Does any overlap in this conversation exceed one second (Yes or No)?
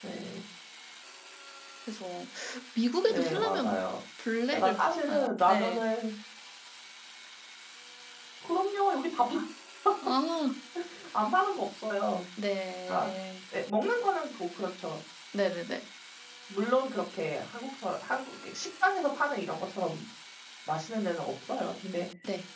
Yes